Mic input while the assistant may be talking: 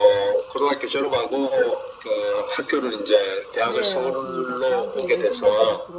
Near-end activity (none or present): present